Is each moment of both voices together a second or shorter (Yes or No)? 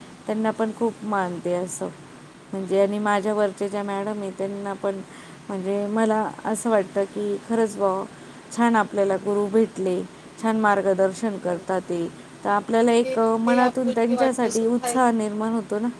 No